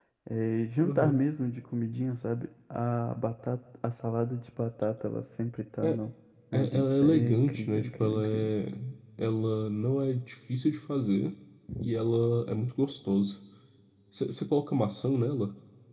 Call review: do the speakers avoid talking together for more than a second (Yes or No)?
No